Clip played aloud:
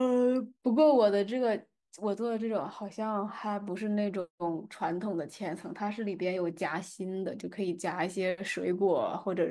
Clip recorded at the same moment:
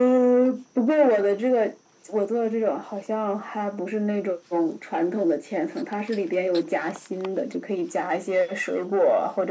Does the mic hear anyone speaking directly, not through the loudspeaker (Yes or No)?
No